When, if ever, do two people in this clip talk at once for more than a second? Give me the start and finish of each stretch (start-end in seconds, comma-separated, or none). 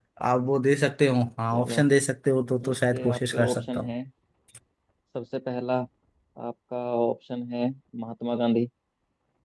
2.7-3.9